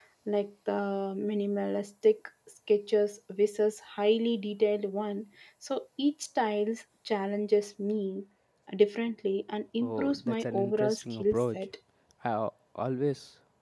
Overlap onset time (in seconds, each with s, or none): 9.8 s